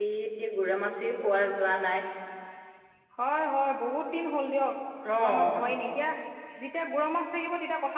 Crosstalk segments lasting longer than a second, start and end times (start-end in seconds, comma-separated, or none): none